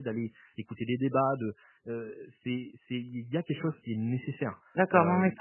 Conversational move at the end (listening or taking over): taking over